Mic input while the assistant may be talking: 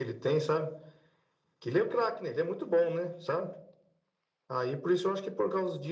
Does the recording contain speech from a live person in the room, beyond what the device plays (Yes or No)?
No